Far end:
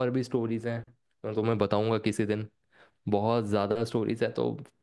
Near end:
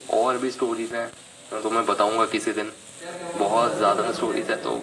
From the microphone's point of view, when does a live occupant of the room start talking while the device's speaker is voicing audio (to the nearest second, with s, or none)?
3 s